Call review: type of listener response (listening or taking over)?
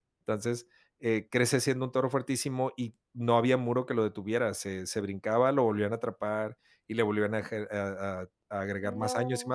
listening